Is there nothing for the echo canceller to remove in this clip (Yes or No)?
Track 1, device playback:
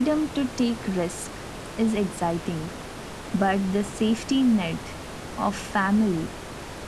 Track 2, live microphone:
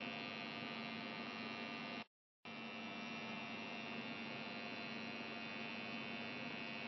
Yes